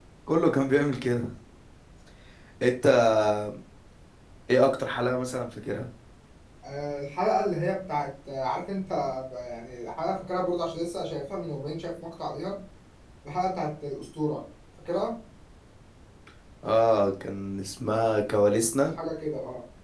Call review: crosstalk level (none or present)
none